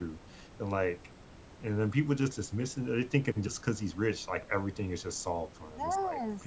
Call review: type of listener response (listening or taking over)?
taking over